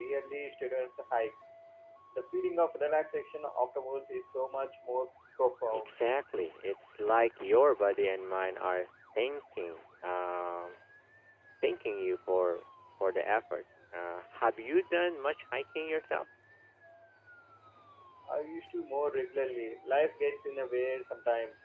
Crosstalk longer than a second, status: none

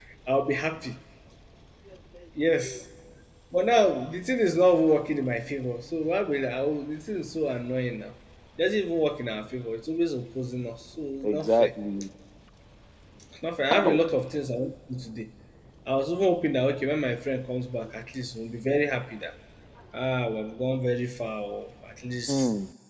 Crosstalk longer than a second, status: none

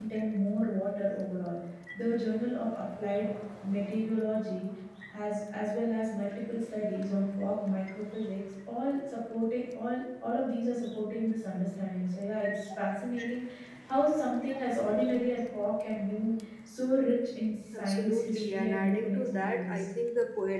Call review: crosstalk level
present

